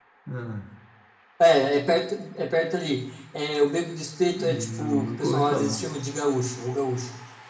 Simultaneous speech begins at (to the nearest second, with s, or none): 4 s